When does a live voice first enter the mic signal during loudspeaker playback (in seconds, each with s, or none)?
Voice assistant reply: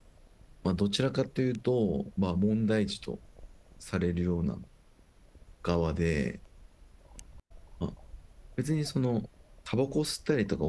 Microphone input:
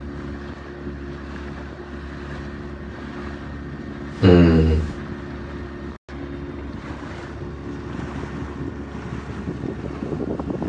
4.2 s